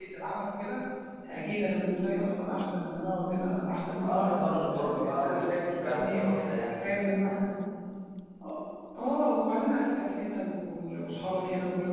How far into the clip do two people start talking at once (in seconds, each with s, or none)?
4.0 s